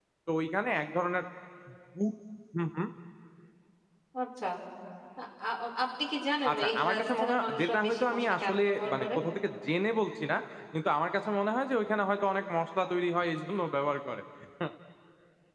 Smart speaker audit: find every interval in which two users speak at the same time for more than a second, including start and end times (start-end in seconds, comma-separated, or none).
6.5-9.1